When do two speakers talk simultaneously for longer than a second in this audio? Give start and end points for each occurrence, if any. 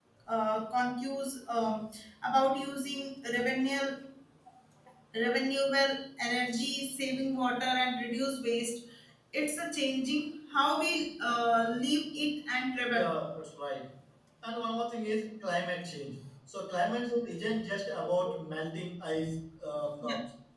none

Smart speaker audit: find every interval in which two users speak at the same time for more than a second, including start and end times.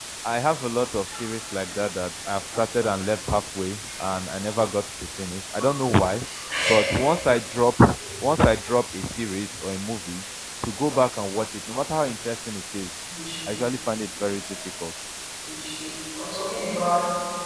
none

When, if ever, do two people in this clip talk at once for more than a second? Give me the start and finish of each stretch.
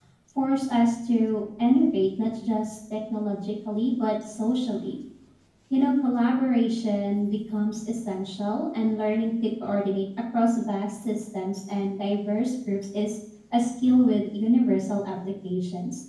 none

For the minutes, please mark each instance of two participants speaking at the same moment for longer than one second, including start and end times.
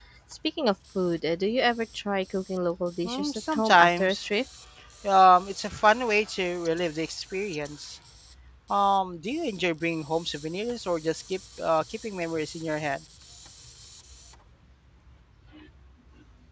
3.0-4.3

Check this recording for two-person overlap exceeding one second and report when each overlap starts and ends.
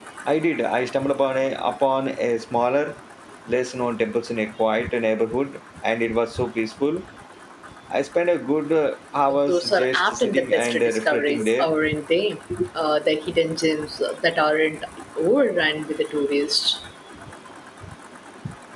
9.3-11.7

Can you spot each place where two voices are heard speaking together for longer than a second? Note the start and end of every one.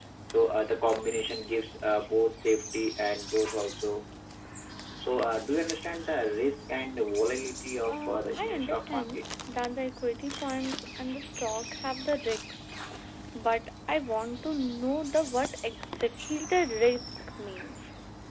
7.9-9.2

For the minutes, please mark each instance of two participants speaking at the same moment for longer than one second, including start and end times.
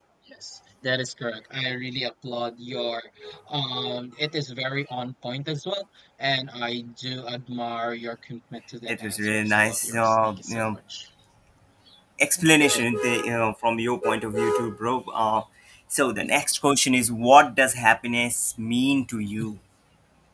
8.9-10.8

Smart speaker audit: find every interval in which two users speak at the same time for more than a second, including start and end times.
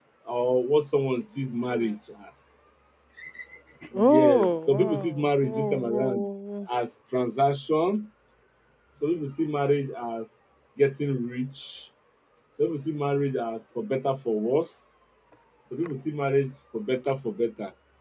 4.0-6.1

